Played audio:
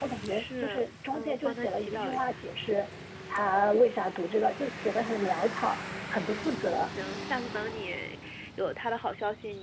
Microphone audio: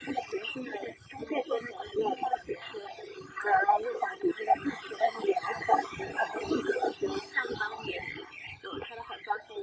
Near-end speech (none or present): none